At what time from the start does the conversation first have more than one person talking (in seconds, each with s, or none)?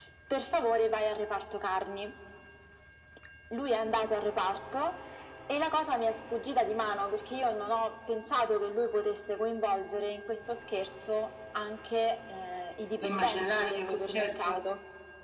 13.0 s